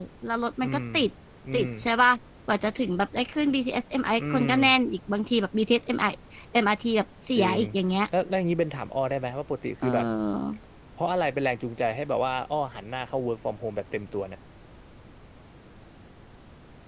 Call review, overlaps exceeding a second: none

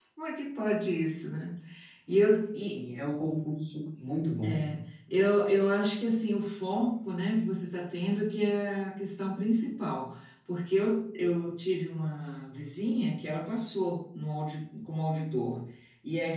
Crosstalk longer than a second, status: none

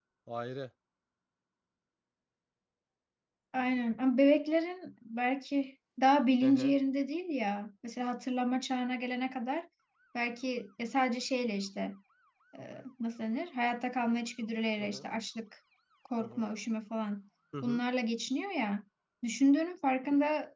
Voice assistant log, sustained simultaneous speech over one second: none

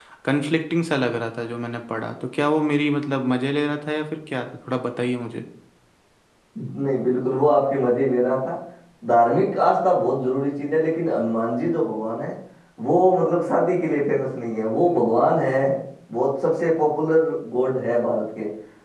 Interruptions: none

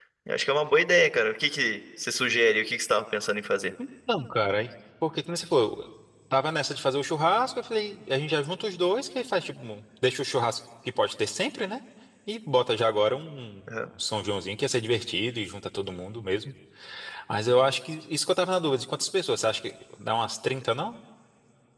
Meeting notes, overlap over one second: none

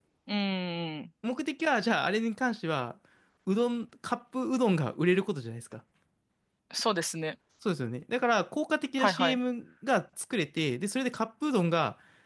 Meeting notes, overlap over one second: none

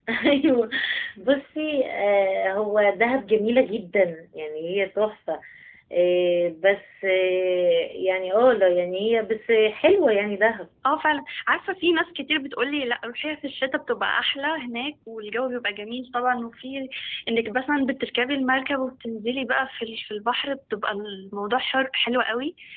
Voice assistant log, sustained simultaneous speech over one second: none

